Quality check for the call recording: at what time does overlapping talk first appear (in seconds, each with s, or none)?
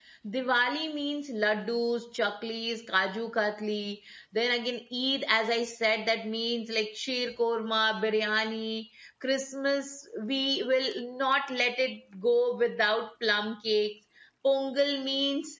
none